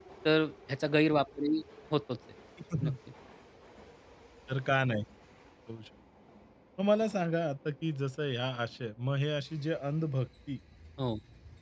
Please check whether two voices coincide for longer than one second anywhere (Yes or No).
No